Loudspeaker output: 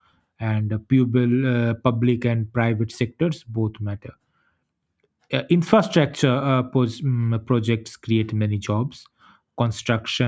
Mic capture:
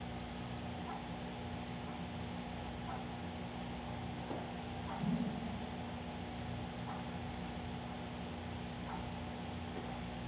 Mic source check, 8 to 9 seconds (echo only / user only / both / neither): neither